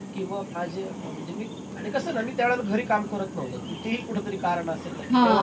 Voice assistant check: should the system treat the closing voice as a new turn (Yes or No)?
Yes